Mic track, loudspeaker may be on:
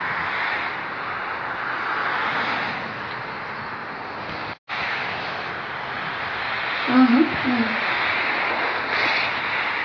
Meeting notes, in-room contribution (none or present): present